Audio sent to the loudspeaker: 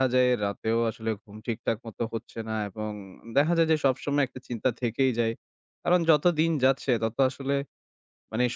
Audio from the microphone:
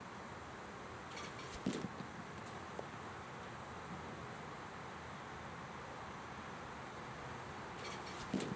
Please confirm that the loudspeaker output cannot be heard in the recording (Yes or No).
Yes